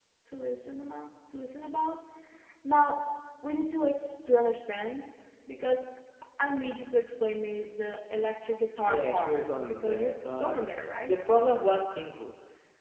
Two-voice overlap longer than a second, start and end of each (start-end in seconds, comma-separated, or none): 8.8-10.6